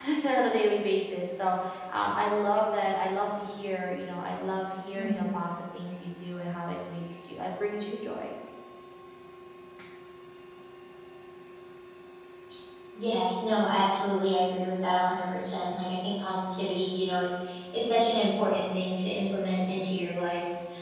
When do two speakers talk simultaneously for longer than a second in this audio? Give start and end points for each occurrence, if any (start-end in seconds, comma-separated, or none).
none